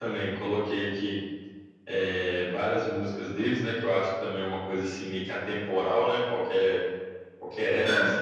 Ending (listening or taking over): listening